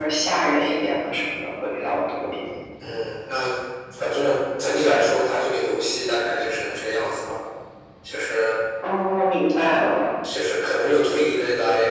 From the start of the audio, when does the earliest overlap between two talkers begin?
none

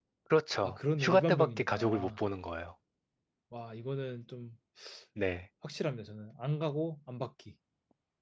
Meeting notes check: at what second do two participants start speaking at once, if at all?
1 s

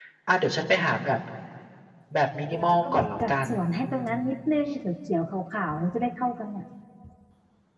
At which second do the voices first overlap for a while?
3 s

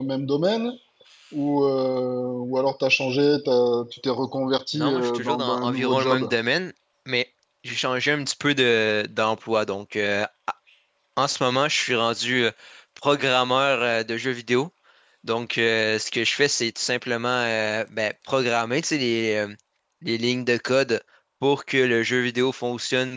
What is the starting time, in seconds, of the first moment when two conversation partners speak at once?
5 s

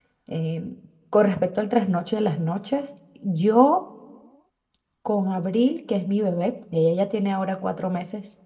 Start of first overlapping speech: none

